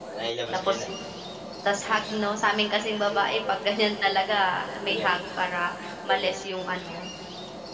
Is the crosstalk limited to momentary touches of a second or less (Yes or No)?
Yes